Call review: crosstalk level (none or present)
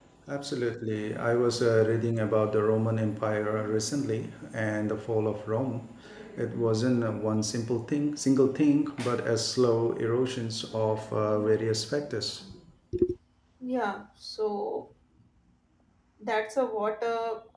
none